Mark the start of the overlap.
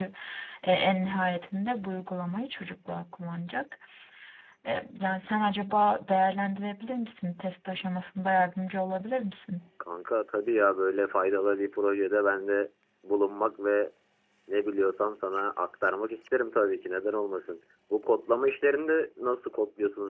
none

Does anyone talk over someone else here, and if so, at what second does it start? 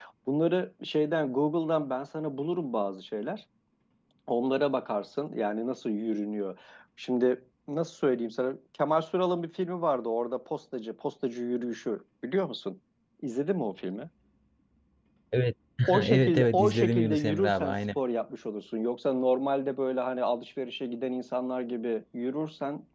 15.9 s

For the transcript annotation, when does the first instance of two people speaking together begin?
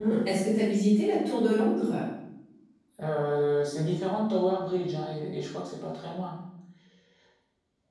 none

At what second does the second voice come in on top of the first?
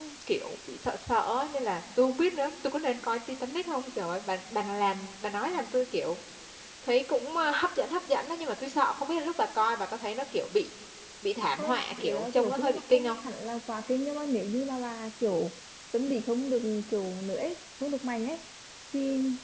11.6 s

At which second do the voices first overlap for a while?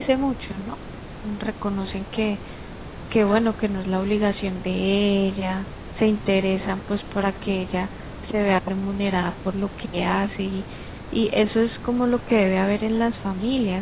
none

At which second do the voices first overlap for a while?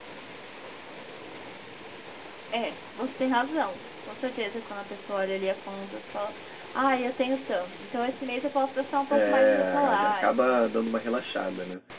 9.1 s

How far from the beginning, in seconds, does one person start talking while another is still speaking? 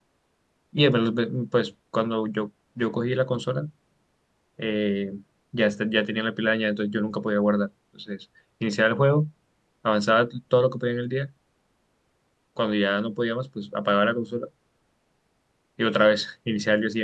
none

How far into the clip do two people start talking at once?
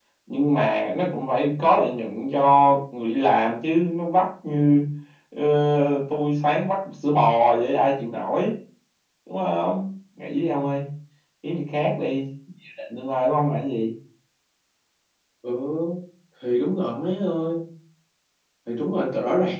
none

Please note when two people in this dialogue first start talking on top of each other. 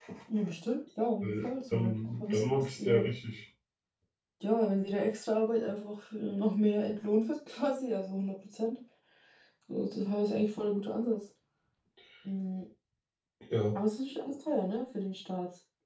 1.2 s

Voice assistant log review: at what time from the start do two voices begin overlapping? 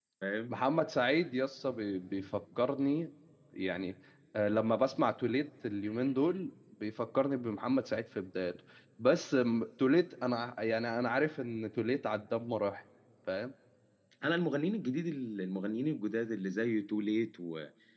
none

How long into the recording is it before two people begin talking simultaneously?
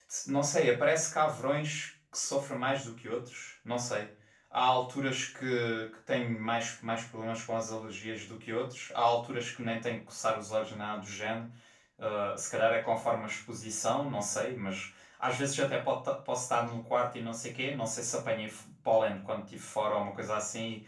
none

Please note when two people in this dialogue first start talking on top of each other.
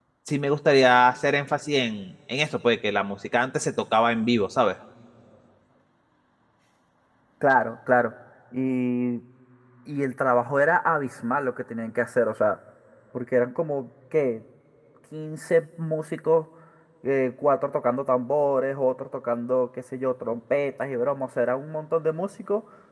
none

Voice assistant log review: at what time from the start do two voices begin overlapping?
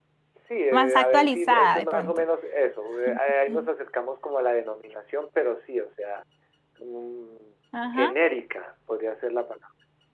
0.7 s

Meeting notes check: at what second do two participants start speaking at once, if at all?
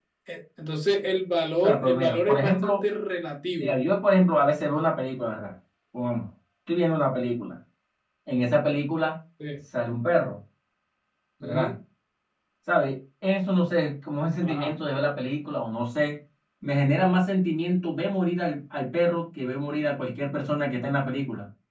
1.6 s

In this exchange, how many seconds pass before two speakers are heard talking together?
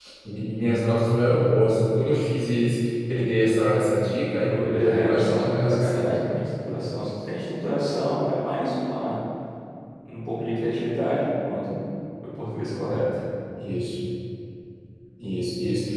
4.5 s

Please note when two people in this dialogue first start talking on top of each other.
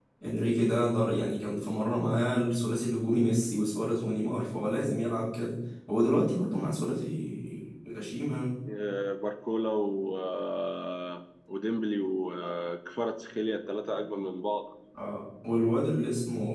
none

